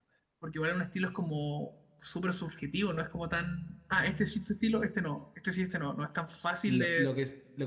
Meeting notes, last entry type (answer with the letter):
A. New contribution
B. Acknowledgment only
A